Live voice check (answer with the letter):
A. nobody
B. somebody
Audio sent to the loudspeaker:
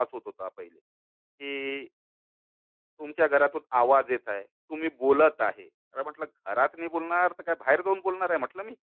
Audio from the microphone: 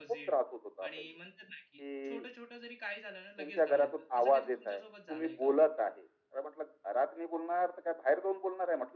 B